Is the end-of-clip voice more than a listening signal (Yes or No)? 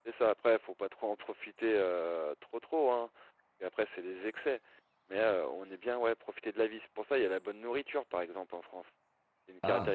Yes